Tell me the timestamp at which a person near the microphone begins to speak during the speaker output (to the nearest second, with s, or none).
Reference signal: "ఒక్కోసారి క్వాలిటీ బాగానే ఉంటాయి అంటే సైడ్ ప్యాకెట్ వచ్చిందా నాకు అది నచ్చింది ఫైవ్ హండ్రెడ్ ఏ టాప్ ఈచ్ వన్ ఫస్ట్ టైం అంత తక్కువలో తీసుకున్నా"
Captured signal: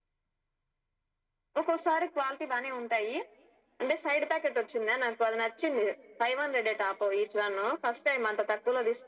none